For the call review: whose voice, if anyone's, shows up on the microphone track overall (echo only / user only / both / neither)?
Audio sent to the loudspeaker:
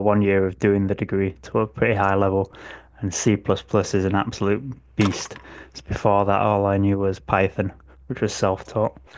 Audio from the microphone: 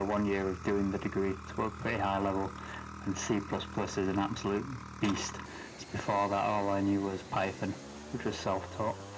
echo only